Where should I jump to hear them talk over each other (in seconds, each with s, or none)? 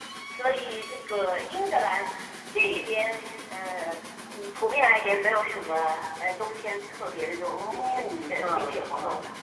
7.4 s